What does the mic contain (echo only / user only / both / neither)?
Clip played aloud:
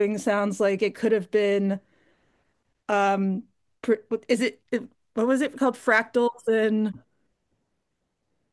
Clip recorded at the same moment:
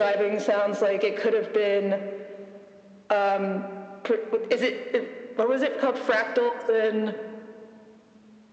echo only